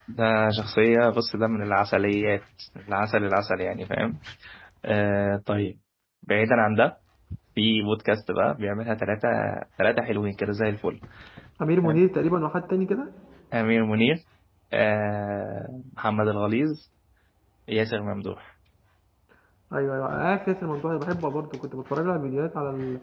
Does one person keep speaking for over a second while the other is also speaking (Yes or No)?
No